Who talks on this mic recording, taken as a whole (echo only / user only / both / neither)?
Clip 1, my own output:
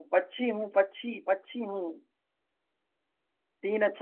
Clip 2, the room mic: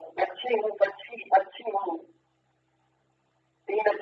echo only